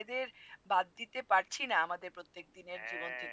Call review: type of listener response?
taking over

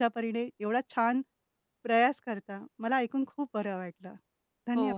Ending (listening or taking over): taking over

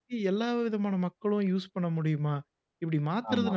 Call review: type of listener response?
listening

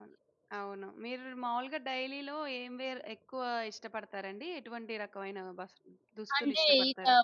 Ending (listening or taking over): taking over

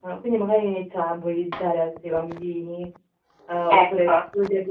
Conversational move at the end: listening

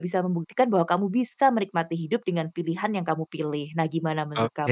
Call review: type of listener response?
taking over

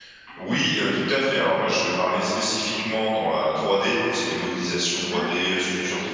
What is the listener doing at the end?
listening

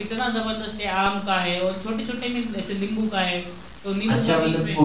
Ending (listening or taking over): taking over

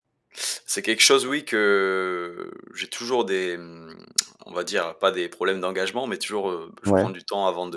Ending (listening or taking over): listening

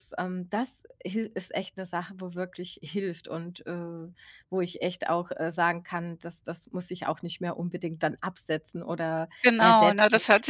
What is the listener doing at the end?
taking over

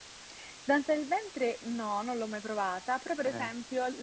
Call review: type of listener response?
listening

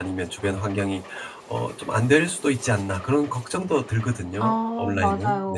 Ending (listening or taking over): taking over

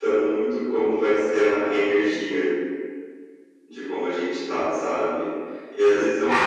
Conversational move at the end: taking over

